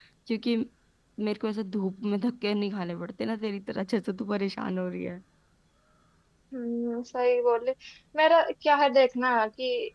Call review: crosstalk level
none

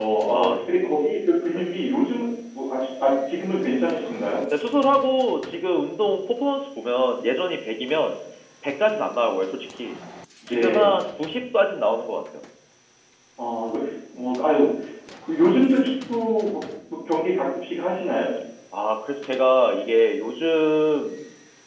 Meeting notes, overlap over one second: none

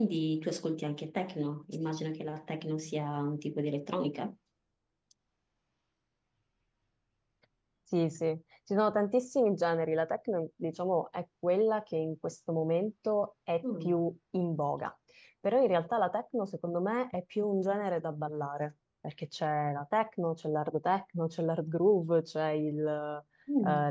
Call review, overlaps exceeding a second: none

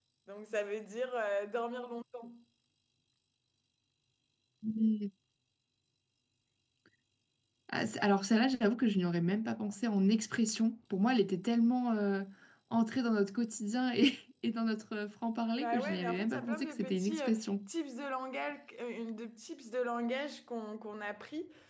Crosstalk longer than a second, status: present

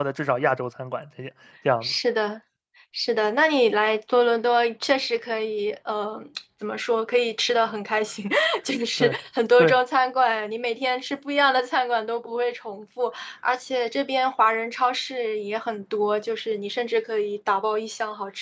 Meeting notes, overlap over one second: none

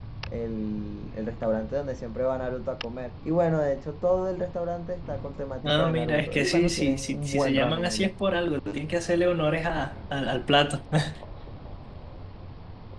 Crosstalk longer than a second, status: present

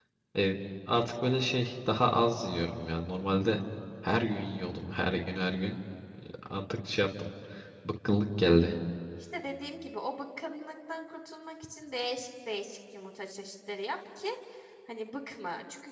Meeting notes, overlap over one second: none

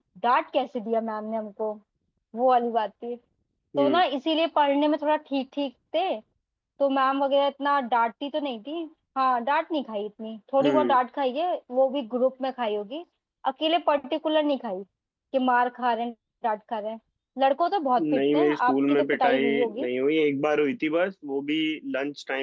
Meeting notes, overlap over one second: present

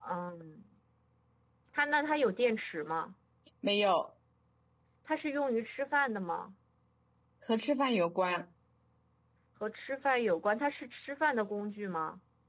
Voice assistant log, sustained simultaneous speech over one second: none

